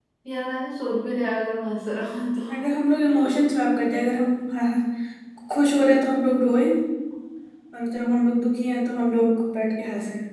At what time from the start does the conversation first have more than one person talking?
none

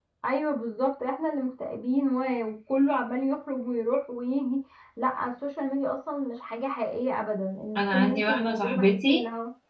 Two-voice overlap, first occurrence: 7.8 s

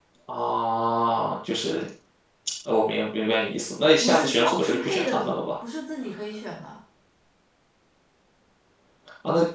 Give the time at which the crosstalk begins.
4.0 s

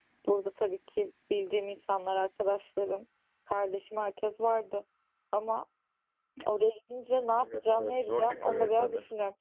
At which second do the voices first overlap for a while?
7.3 s

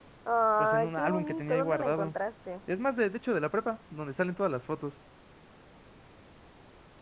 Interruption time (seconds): 0.6 s

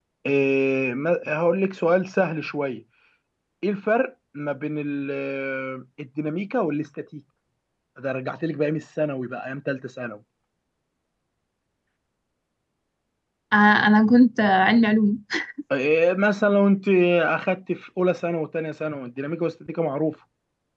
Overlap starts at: none

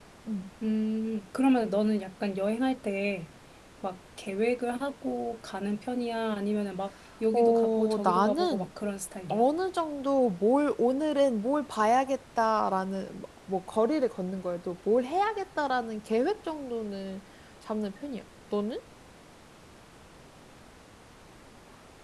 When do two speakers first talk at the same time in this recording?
7.3 s

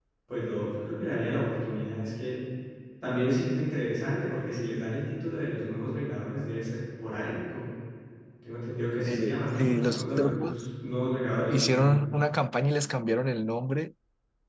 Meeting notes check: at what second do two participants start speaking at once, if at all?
9.1 s

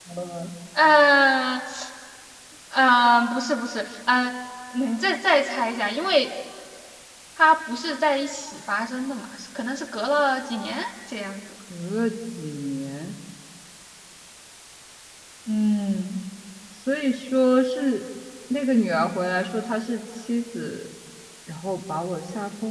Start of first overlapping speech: none

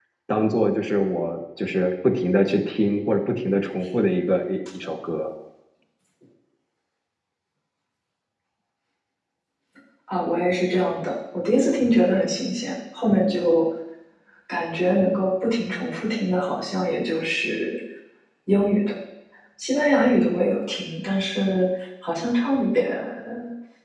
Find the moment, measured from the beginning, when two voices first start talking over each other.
none

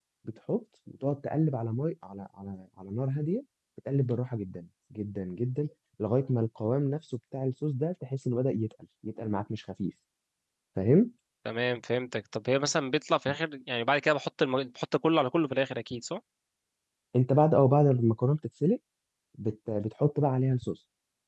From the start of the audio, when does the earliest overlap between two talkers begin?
none

